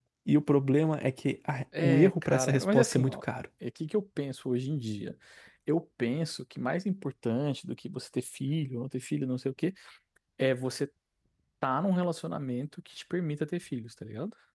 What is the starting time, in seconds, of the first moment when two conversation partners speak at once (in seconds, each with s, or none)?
1.7 s